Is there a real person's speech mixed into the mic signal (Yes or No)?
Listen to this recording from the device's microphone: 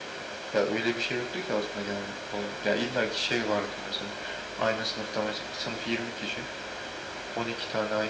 No